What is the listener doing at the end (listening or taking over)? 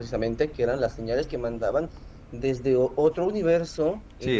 listening